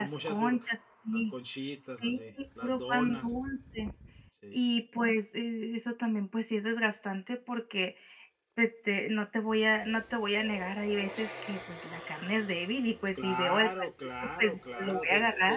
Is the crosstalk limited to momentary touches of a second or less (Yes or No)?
No